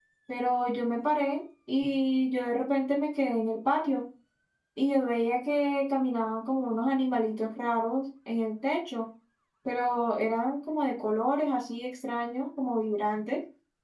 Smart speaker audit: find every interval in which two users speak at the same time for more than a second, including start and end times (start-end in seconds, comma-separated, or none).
none